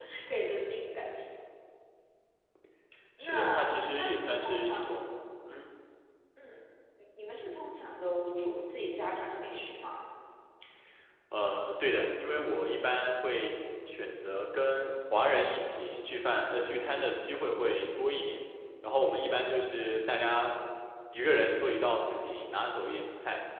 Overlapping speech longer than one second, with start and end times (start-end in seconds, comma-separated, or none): 3.2-5.1